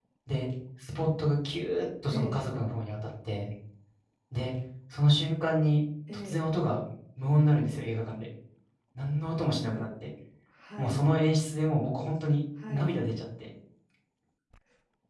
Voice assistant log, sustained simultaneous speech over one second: none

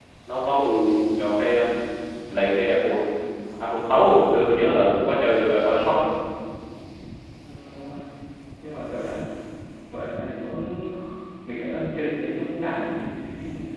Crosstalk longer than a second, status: none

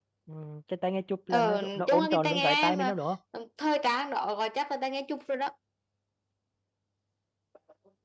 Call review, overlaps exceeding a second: present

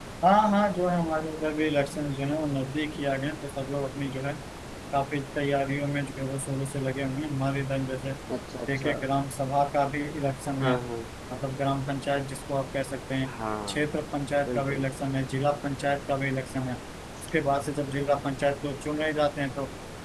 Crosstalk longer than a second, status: none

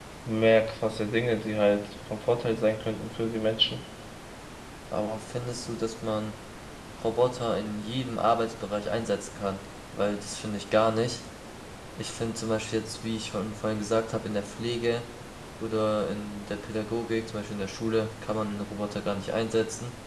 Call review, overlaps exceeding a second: none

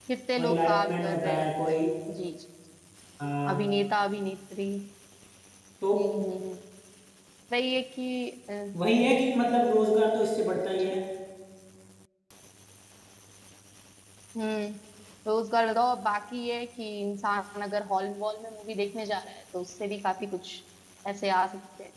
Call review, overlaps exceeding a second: present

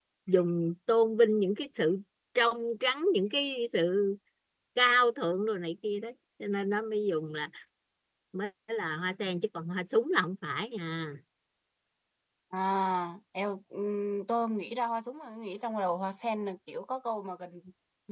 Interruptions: none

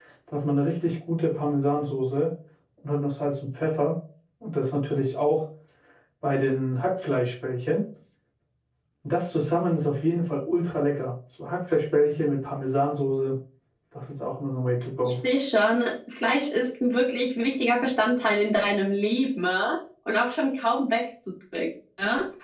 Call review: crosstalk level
none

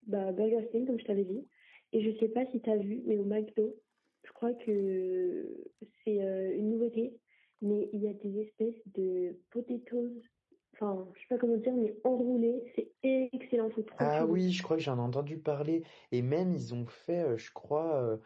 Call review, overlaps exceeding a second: none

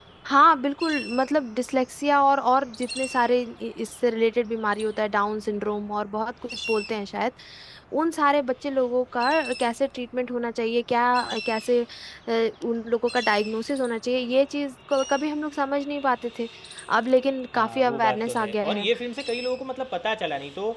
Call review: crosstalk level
present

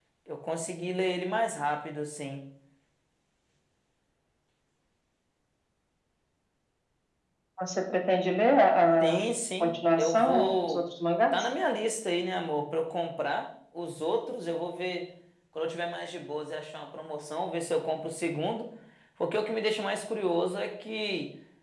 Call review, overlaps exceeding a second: present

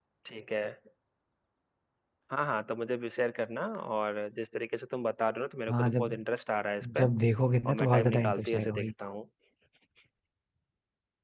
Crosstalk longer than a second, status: present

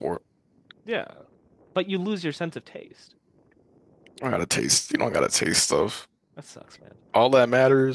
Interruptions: none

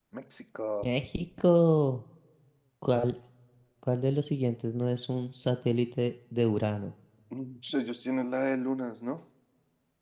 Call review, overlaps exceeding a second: none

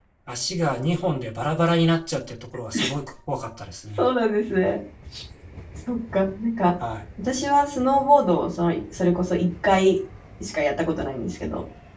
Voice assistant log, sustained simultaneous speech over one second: none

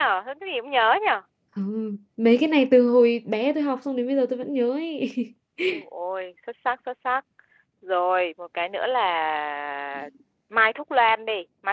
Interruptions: none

